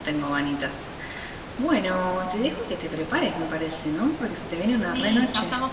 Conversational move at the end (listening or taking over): taking over